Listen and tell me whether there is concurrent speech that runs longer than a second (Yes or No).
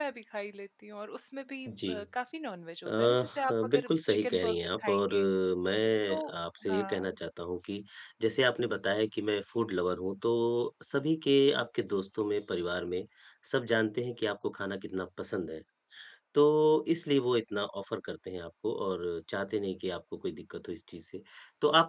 Yes